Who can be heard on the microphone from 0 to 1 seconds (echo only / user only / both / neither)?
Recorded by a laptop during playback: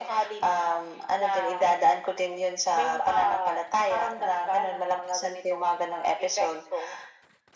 echo only